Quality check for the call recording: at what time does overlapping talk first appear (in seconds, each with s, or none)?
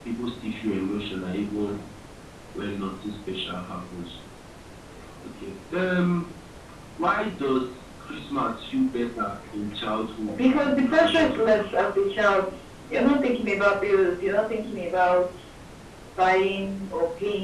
10.3 s